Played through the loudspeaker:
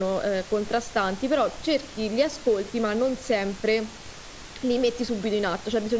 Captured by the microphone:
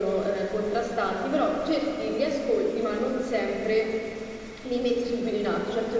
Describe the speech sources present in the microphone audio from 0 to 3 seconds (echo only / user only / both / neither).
echo only